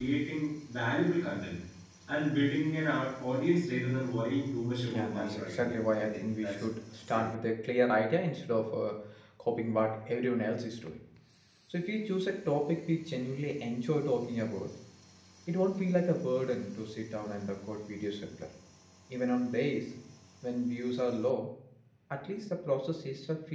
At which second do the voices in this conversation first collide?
4.9 s

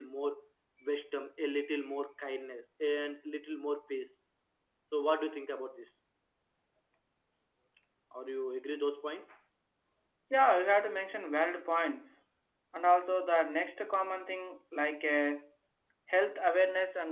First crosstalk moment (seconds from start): none

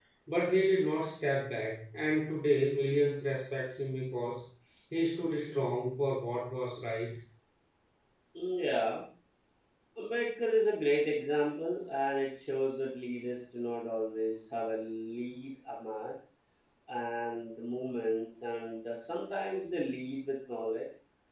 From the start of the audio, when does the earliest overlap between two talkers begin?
none

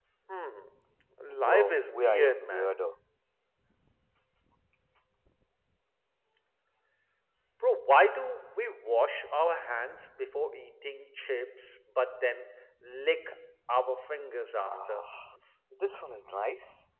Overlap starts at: 1.3 s

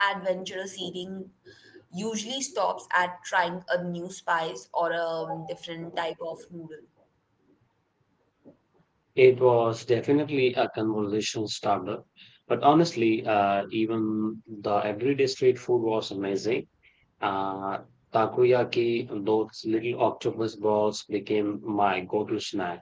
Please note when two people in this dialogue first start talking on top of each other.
none

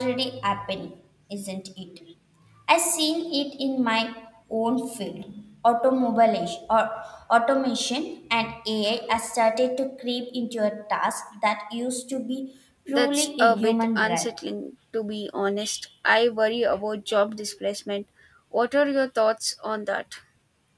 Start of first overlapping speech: 12.9 s

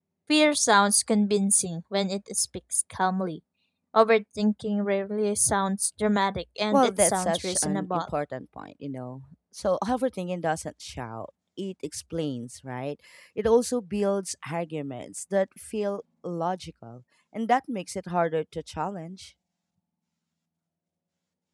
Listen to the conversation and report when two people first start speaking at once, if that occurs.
6.7 s

